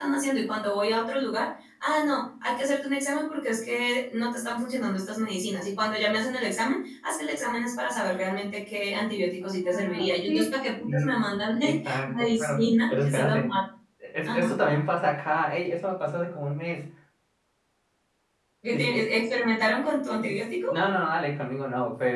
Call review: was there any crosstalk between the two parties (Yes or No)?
Yes